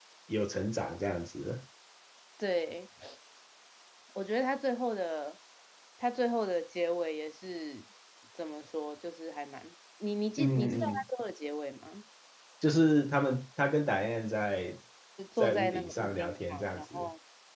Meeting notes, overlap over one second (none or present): present